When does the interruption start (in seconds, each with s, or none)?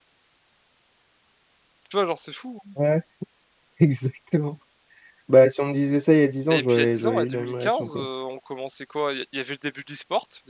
6.5 s